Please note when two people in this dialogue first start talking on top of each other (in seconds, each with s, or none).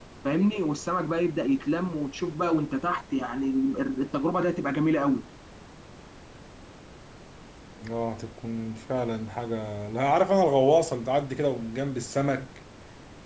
none